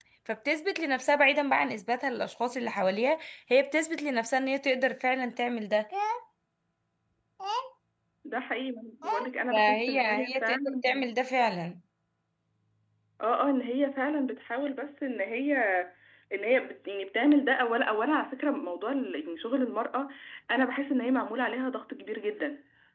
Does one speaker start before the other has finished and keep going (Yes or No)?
Yes